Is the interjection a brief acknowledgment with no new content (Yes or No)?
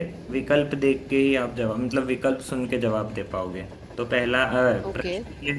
Yes